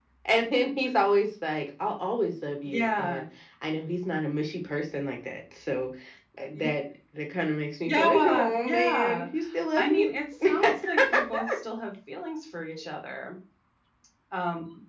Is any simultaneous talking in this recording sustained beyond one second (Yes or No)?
Yes